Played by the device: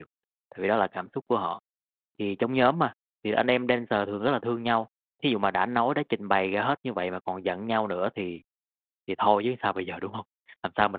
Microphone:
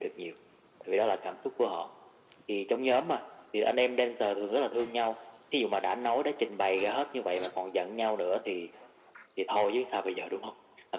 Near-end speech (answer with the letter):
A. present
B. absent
B